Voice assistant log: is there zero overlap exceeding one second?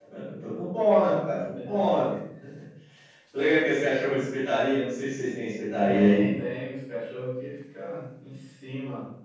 Yes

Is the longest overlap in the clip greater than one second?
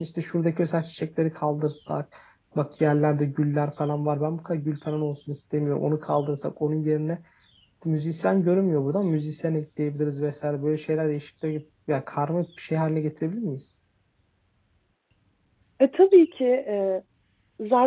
No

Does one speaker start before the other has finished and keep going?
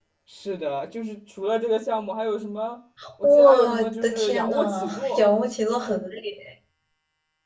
Yes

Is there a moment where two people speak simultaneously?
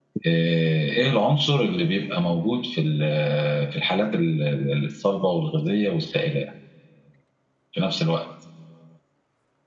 No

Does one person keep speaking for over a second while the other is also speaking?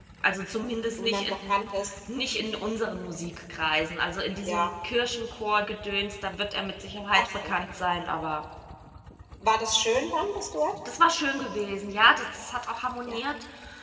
No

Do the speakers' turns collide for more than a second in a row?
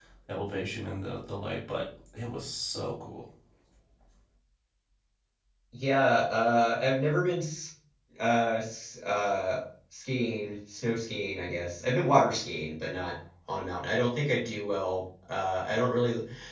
No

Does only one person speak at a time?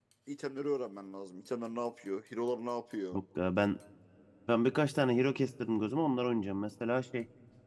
Yes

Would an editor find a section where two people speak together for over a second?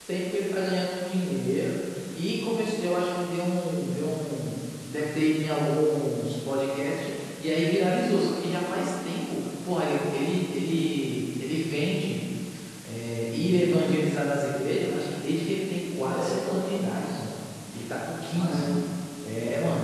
Yes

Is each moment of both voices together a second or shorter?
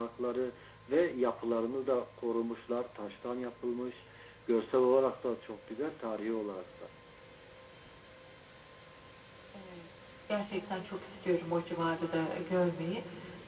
Yes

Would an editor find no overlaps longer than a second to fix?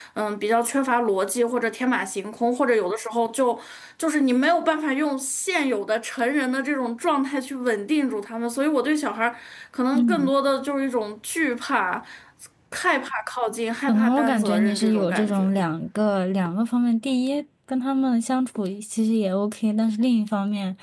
No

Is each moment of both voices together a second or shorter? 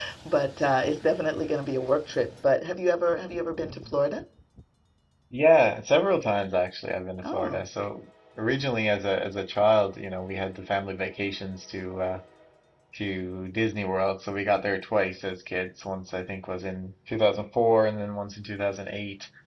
Yes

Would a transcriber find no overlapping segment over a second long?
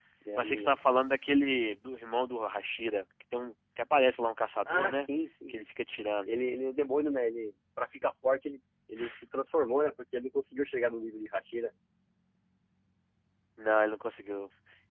Yes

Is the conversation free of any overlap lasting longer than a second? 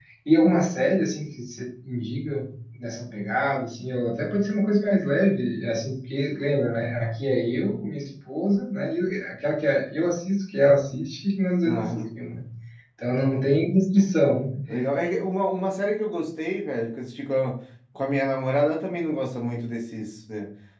Yes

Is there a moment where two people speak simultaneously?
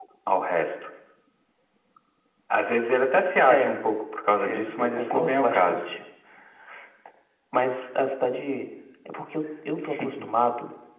Yes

